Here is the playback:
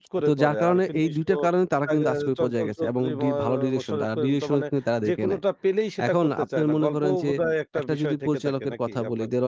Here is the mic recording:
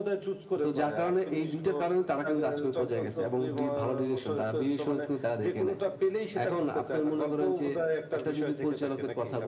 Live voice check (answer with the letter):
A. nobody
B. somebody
A